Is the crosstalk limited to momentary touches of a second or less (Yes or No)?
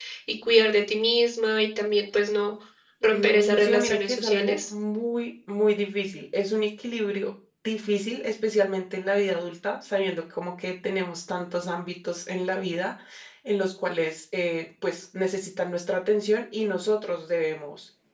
No